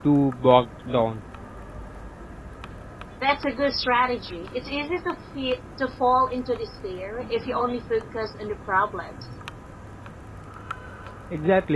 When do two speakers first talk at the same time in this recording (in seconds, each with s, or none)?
none